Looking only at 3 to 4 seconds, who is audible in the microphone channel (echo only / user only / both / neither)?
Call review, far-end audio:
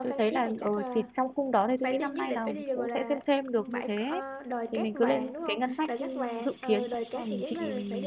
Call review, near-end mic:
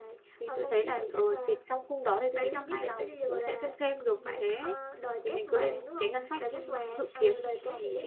echo only